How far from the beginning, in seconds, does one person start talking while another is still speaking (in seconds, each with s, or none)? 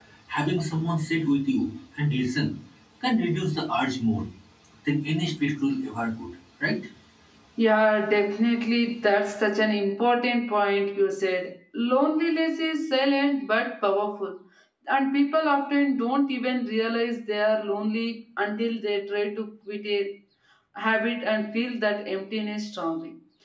none